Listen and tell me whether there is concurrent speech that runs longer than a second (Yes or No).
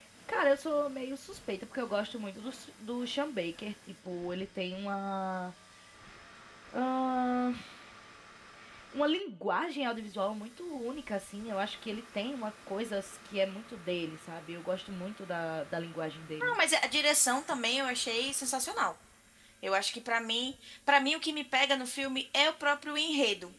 No